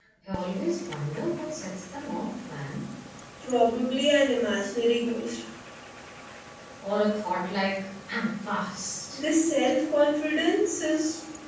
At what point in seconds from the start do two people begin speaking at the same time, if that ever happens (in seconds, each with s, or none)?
none